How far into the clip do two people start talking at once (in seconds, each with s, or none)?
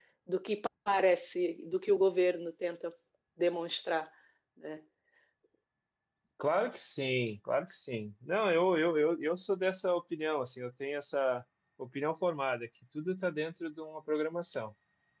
none